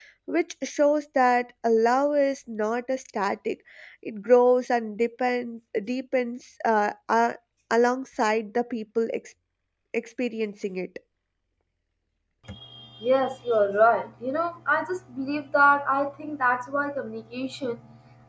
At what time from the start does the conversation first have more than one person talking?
none

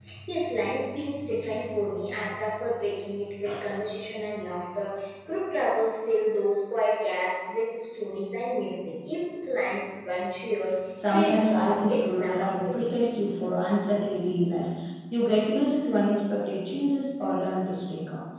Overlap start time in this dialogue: 11.0 s

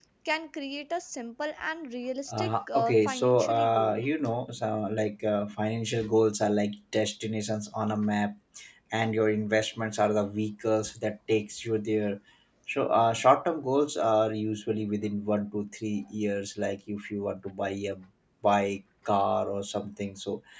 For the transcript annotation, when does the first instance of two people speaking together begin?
2.3 s

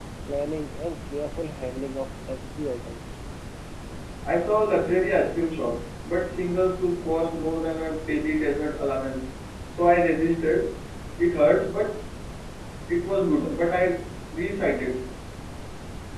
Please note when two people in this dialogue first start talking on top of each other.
none

